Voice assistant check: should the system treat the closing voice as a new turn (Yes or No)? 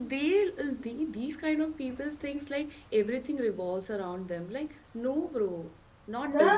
No